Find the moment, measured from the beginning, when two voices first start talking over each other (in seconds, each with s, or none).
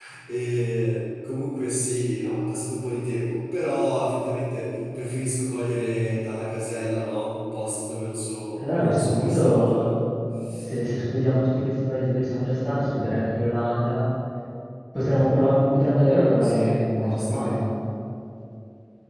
8.6 s